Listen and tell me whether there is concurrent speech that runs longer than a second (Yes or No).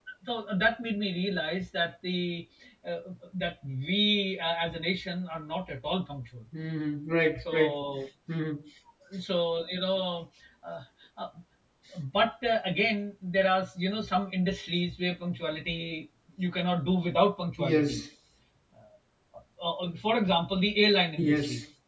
No